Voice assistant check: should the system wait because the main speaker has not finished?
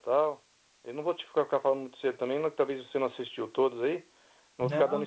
No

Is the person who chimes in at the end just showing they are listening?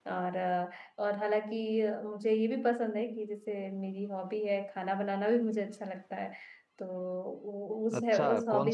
No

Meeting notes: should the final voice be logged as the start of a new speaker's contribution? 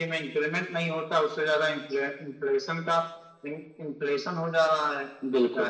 Yes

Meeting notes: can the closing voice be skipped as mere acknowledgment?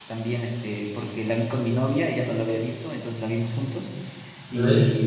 Yes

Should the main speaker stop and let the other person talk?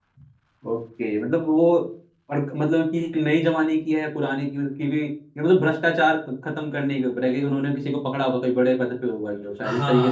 Yes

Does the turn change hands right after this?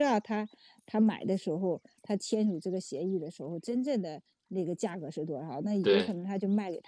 No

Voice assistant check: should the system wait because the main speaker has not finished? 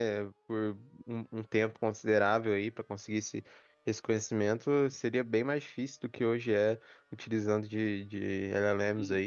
No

